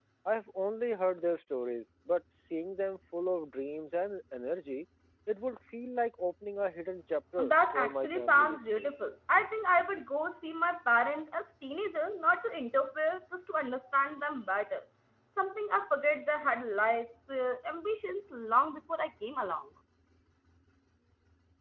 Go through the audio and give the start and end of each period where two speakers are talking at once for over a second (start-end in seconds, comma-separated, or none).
7.4-8.9